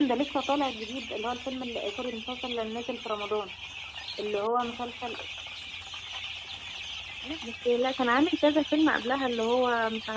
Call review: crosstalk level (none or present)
none